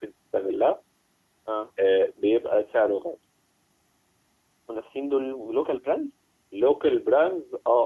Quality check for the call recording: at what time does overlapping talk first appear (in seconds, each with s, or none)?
none